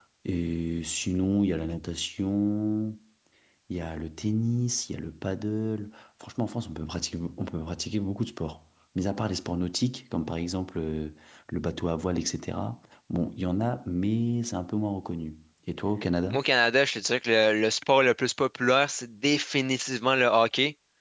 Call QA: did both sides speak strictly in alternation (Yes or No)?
Yes